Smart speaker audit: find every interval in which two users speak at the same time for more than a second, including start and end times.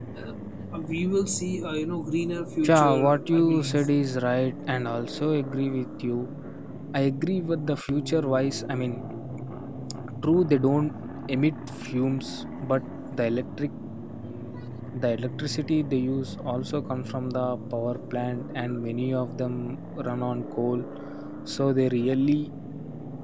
2.7-3.9

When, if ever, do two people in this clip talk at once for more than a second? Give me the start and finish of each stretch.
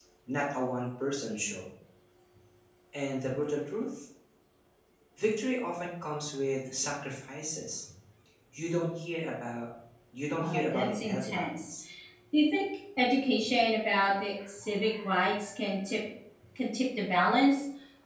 10.4-11.7

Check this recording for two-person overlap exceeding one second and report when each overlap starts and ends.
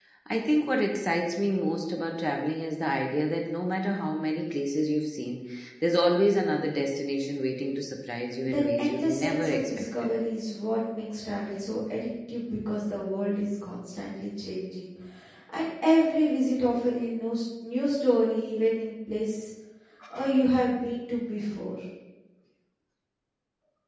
8.5-10.1

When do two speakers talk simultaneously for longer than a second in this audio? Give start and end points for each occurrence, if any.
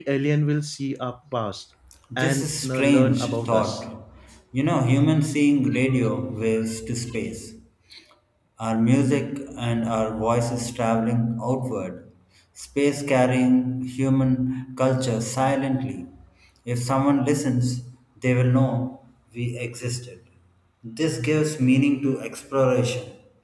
2.2-3.8

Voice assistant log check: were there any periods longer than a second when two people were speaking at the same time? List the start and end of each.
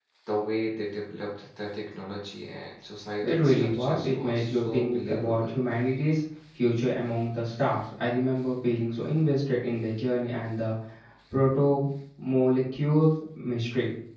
3.2-5.5

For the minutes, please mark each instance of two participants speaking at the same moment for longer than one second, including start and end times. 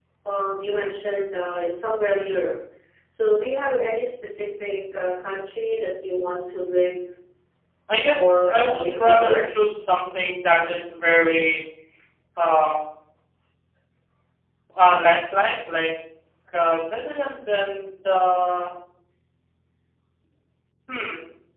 8.1-9.4

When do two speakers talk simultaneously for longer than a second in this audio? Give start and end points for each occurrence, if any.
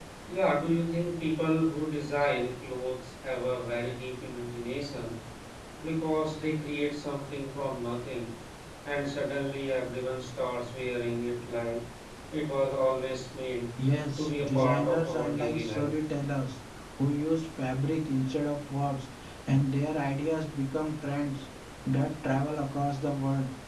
14.2-15.9

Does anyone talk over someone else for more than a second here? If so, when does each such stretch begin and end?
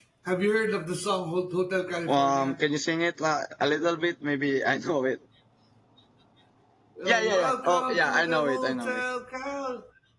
7.1-9.0

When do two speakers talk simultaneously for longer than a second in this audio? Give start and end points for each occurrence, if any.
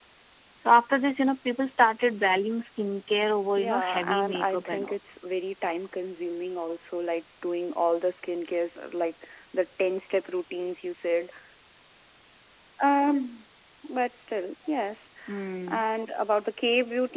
3.6-5.0

